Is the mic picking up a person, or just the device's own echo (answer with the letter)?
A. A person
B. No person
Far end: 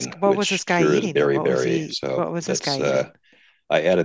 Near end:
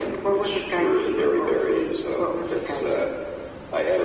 B